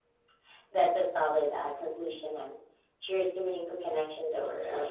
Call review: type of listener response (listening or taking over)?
taking over